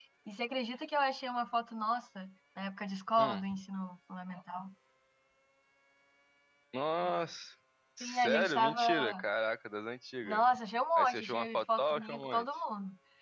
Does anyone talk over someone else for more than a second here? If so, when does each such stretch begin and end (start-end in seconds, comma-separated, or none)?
8.0-9.2, 10.9-12.5